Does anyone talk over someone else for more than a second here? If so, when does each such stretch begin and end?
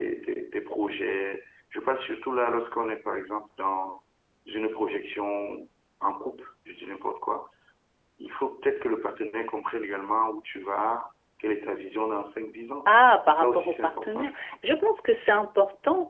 13.3-14.5

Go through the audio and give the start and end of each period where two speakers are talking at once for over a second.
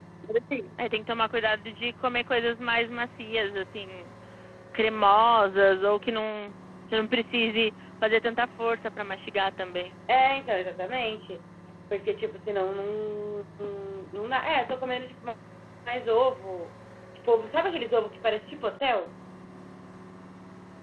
none

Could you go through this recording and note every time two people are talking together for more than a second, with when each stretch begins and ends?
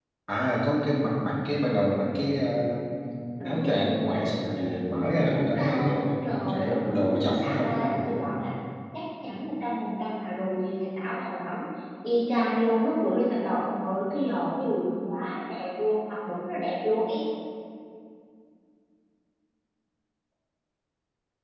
3.4-6.1, 6.5-8.0

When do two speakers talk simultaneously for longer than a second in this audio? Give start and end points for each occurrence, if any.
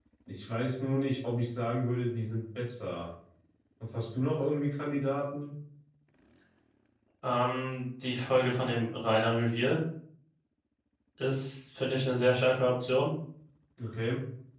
none

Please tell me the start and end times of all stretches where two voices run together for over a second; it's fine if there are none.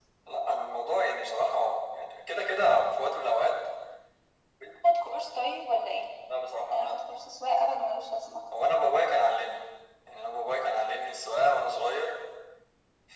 none

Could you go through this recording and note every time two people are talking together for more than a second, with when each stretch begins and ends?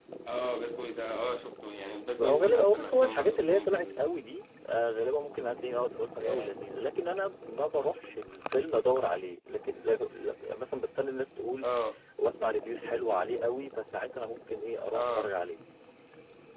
2.2-3.8

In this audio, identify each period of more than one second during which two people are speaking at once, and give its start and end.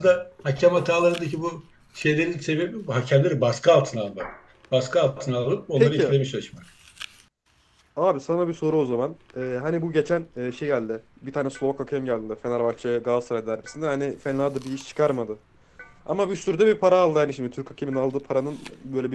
none

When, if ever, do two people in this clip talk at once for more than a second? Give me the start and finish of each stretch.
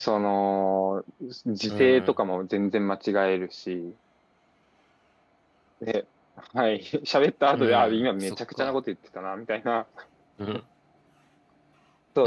7.5-8.8

